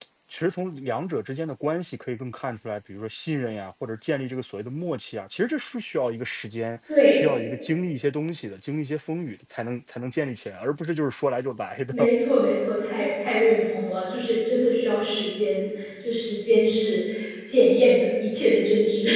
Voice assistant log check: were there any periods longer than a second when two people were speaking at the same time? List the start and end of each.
none

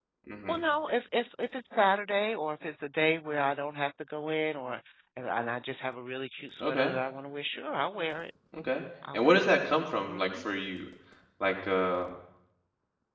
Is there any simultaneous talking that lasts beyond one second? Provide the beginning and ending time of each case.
9.1-10.4

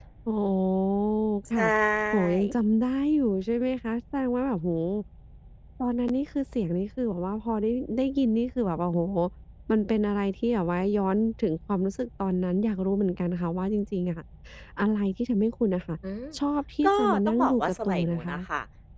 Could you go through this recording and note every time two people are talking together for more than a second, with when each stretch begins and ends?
16.9-18.4

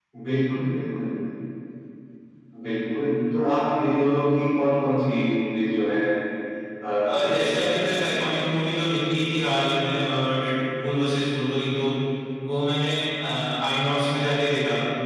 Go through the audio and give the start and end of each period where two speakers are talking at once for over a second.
7.0-8.4

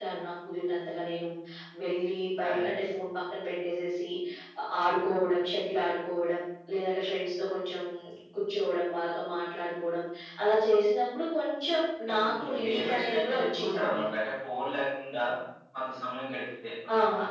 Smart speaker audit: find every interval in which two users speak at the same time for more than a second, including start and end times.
12.2-14.0

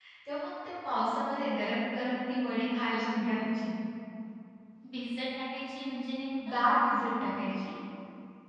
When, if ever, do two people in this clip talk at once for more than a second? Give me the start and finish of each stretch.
none

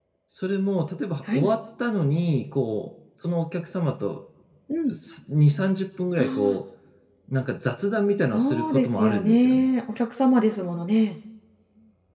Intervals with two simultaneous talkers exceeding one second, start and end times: 8.3-9.7

